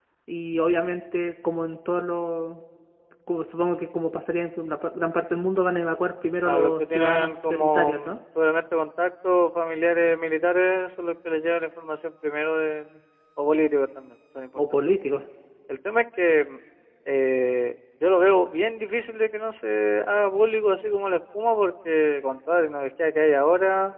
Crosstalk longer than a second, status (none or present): present